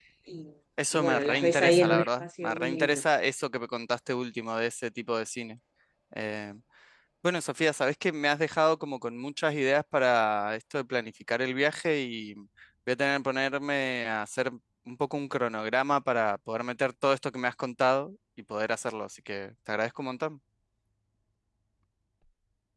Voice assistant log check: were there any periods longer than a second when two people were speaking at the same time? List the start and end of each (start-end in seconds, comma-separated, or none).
0.9-3.0